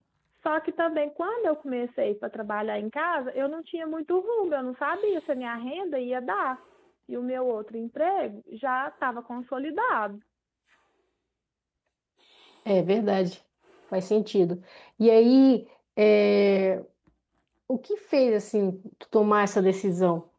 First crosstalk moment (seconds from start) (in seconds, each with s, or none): none